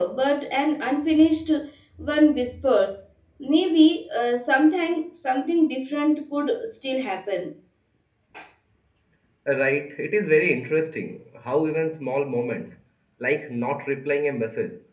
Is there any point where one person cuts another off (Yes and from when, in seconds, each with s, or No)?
No